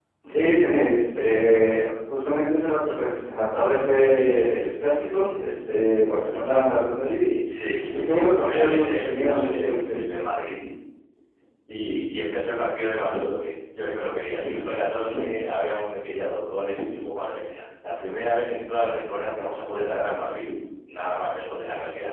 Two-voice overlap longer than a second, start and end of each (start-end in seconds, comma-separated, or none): 7.9-10.0